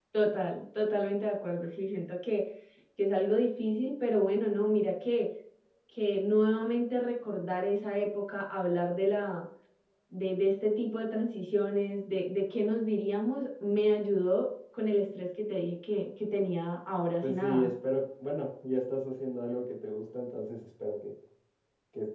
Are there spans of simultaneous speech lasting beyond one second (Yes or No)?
No